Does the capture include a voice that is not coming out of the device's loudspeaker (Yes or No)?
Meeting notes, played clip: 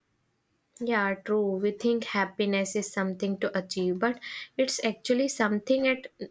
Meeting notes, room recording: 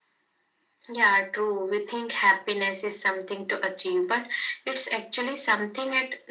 No